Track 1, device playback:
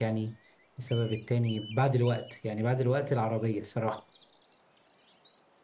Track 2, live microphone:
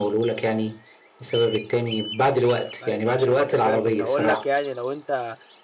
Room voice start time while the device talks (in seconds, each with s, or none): 2.8 s